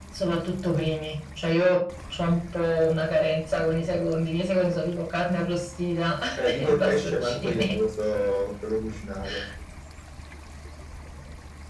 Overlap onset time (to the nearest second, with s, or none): 7 s